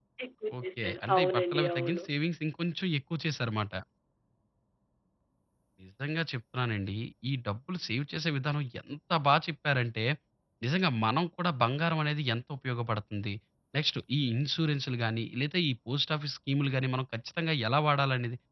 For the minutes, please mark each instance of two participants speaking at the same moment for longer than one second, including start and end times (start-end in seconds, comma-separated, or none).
0.6-2.0